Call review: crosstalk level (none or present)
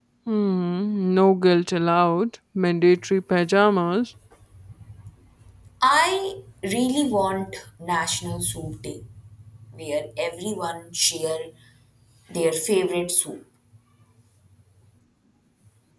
none